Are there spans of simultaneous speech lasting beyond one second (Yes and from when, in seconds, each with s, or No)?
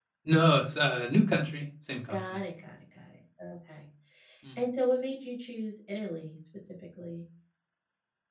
No